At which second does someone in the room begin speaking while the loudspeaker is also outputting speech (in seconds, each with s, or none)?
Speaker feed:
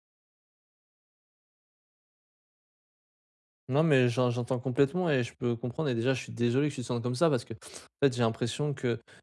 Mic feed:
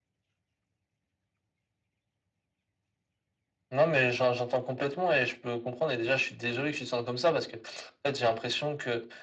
none